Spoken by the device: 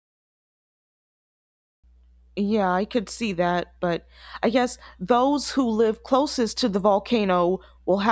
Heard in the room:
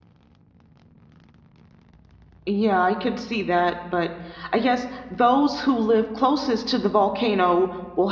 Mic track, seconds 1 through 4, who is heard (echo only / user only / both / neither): echo only